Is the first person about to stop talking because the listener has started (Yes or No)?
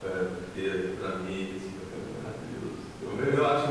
No